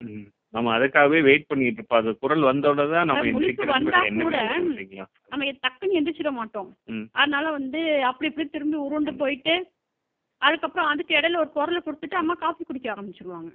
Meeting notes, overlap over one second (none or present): present